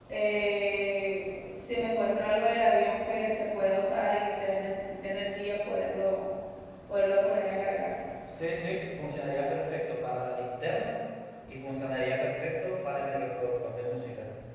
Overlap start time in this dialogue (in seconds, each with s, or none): none